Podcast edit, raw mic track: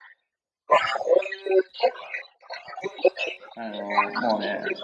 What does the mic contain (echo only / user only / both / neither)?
both